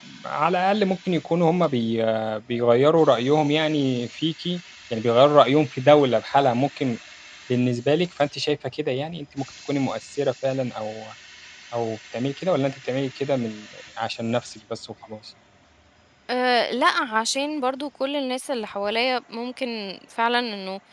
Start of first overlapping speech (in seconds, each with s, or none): none